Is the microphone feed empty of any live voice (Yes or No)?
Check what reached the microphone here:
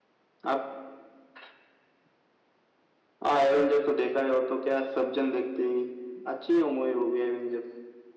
Yes